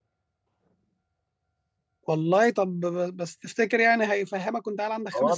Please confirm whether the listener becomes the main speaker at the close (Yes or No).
Yes